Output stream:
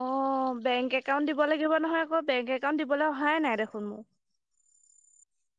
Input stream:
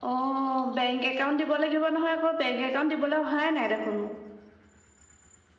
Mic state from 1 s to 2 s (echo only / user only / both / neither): echo only